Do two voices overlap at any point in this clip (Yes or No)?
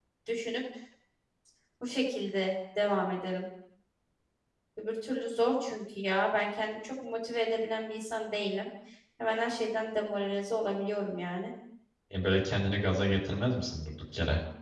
No